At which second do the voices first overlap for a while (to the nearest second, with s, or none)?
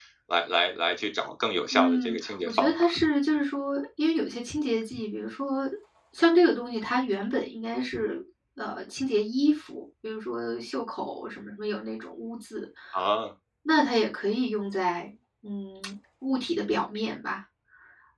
2 s